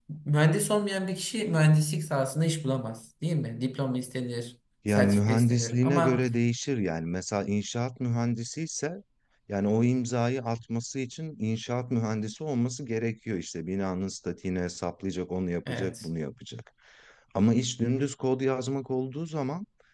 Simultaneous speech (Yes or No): Yes